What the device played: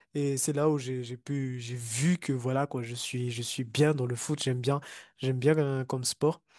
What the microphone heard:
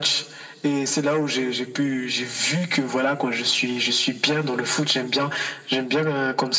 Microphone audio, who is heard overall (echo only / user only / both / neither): echo only